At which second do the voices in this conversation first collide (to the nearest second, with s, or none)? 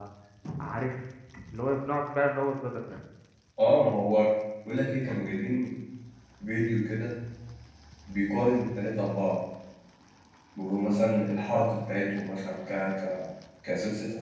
none